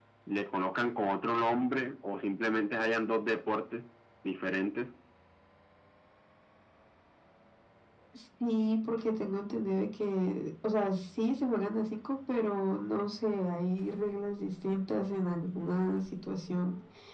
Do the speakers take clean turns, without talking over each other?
Yes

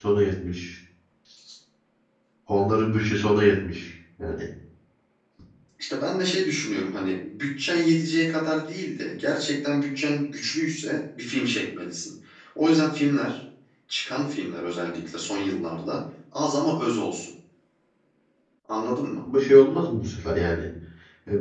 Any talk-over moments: No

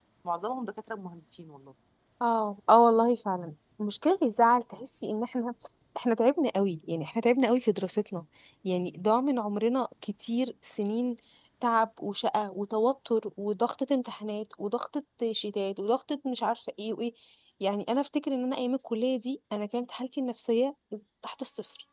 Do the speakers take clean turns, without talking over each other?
Yes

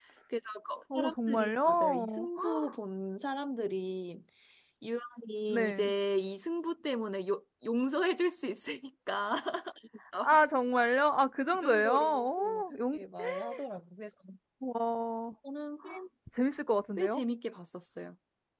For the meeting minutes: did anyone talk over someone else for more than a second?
Yes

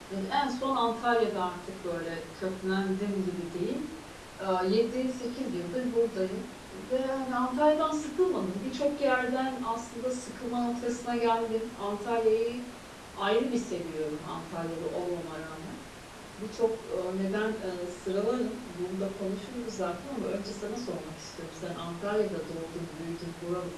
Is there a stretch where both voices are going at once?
No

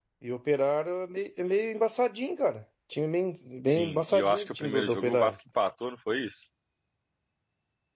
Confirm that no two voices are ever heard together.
No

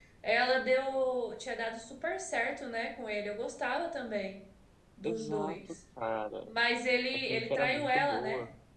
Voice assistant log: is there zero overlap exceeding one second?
No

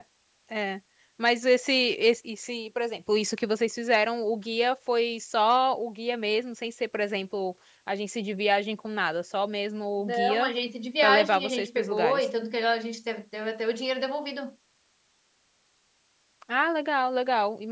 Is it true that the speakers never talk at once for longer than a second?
No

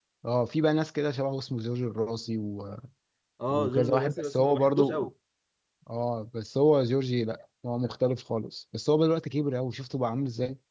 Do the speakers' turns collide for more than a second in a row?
Yes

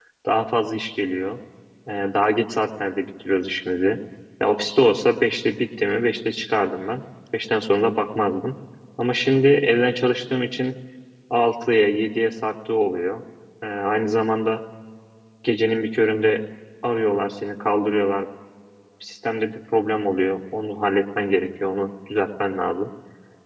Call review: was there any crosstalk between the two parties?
No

